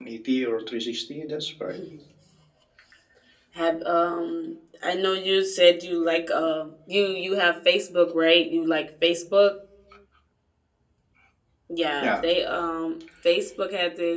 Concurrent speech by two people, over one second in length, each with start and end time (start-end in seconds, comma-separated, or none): none